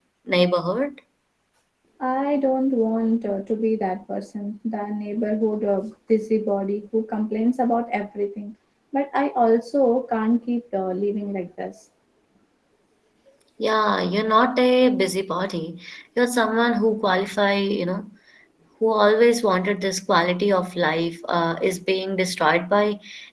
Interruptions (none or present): none